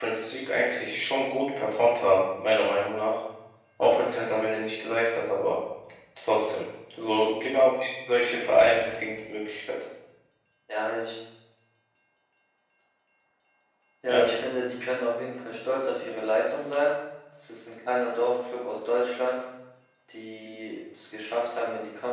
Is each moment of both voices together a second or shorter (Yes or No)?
Yes